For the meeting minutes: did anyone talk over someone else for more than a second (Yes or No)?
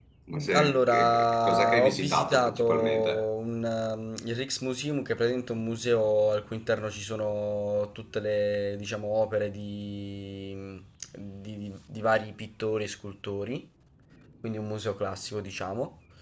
Yes